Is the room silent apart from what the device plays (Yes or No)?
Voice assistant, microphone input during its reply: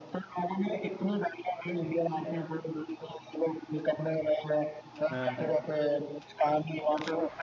No